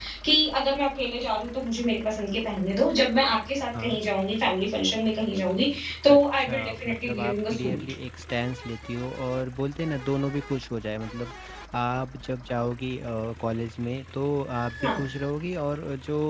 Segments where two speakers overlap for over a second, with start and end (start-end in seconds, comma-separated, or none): 6.1-7.8